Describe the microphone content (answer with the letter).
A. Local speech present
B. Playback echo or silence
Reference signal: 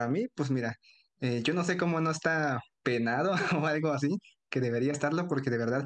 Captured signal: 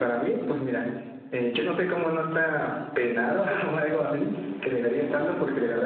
B